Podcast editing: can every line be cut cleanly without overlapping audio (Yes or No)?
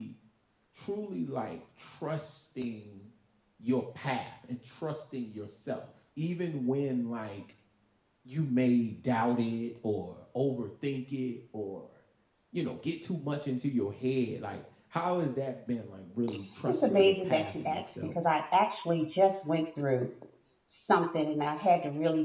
No